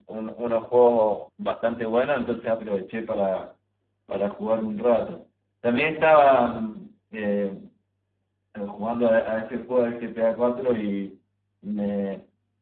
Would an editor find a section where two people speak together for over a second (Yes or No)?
No